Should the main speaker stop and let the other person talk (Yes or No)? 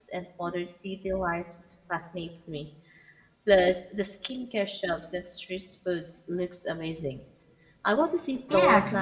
Yes